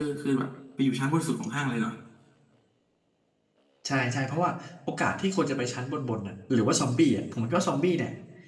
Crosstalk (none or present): none